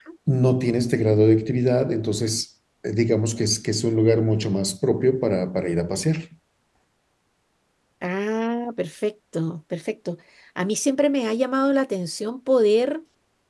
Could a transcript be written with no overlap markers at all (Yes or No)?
Yes